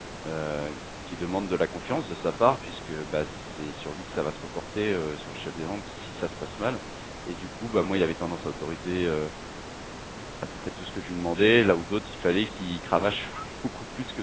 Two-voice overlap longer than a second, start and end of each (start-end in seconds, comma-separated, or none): none